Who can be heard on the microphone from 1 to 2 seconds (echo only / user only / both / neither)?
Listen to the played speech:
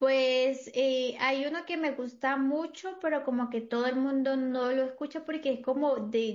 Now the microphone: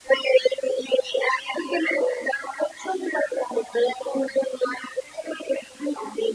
echo only